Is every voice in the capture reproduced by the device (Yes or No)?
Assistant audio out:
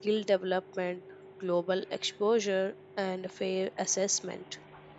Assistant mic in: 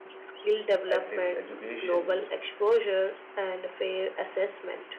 No